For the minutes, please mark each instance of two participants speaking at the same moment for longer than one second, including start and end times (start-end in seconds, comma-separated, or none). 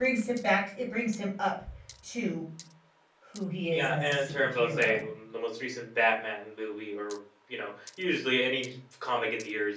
3.7-5.0